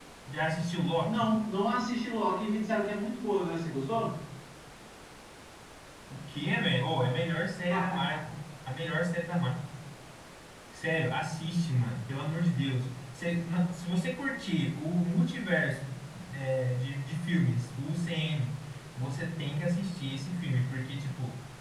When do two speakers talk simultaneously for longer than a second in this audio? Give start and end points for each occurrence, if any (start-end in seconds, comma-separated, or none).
none